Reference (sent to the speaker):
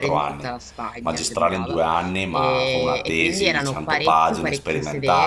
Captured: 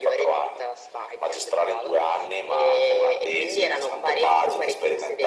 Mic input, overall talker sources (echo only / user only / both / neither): echo only